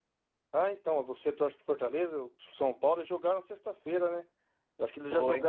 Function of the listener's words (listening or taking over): listening